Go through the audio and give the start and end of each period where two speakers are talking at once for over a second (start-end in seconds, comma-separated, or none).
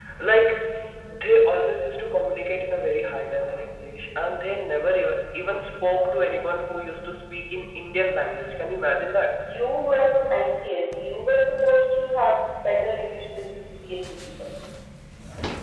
none